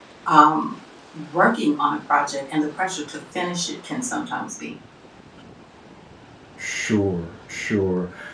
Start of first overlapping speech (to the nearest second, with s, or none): none